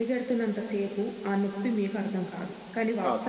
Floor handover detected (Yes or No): No